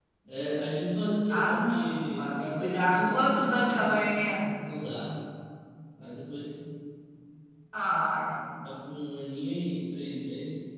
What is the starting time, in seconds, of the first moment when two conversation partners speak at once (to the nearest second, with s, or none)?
1 s